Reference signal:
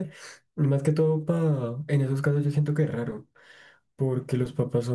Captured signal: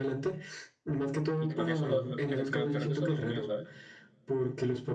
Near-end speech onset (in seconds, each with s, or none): 1.4 s